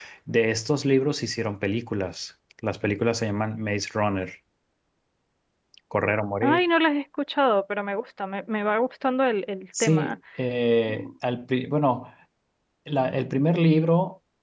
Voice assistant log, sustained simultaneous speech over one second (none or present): none